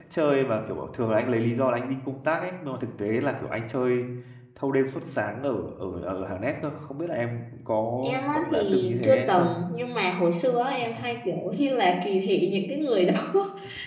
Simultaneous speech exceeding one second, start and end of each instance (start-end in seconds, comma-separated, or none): 8.3-9.6